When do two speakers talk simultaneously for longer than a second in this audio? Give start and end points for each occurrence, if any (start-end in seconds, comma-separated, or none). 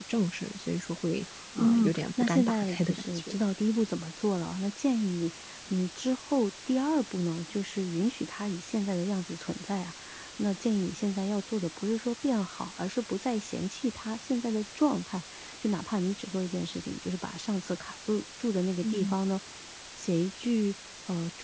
1.6-3.4